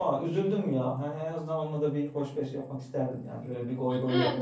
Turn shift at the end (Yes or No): Yes